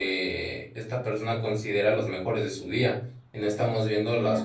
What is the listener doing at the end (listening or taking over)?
listening